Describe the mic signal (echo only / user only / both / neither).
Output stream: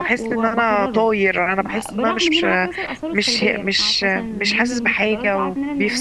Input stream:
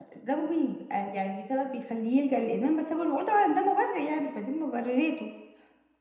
user only